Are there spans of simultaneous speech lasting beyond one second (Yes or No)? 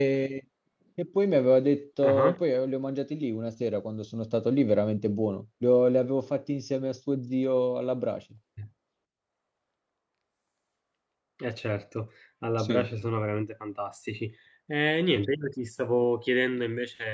No